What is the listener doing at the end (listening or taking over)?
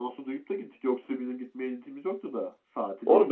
taking over